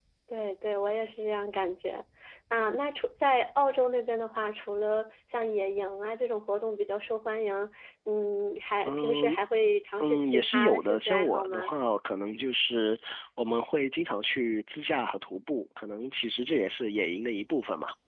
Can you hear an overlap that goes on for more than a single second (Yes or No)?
Yes